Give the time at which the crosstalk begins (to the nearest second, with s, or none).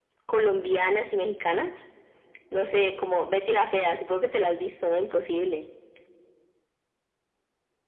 none